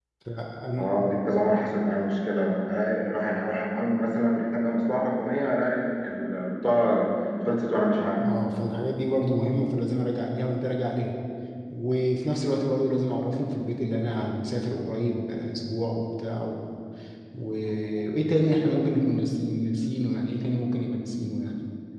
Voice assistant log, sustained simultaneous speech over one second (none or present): none